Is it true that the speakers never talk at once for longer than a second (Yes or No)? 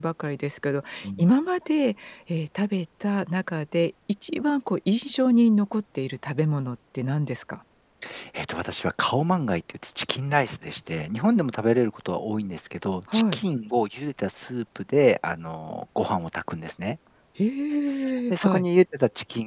Yes